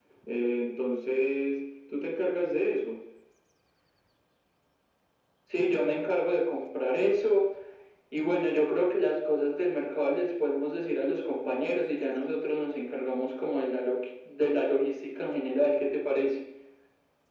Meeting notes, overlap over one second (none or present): none